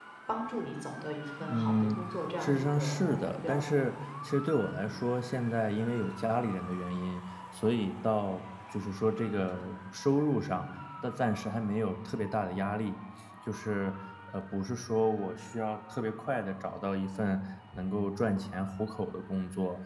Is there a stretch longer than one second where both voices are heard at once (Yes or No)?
Yes